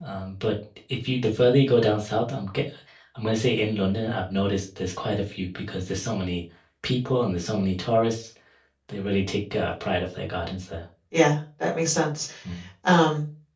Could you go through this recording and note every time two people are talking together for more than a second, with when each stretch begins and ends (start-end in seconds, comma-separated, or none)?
none